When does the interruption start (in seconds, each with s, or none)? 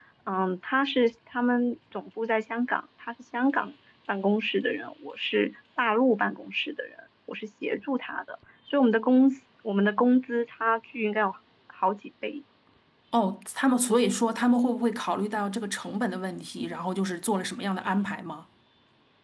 none